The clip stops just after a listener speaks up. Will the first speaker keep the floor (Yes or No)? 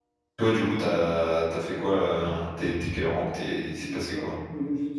No